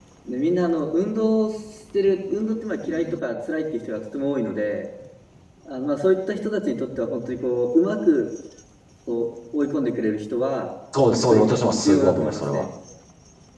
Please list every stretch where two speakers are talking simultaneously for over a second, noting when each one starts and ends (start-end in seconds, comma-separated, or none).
11.2-12.7